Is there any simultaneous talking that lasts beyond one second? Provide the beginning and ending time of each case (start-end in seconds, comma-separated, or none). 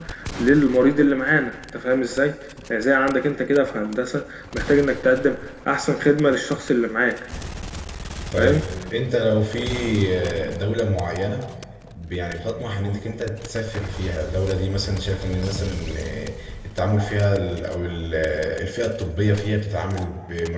none